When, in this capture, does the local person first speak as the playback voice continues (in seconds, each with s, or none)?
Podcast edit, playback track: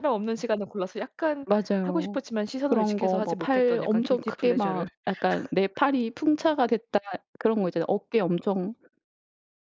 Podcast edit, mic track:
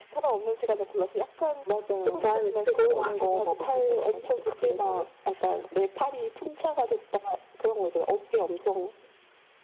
2.1 s